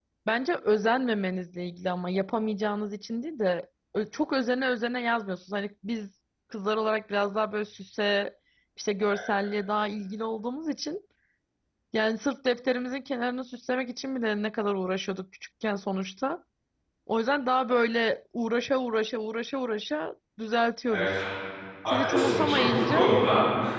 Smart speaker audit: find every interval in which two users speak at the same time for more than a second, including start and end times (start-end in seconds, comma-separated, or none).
21.9-23.1